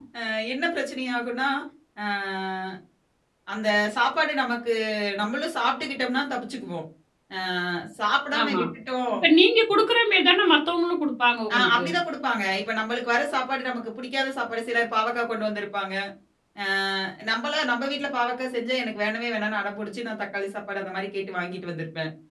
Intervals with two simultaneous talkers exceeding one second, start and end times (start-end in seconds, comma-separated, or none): none